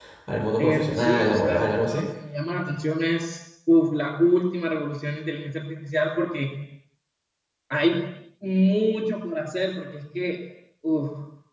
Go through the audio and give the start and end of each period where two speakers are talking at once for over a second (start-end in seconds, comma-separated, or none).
0.6-2.1